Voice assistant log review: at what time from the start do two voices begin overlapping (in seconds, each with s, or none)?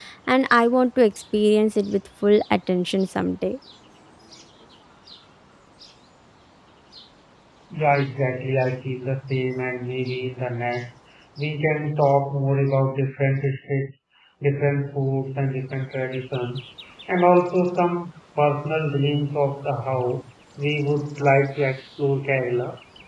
none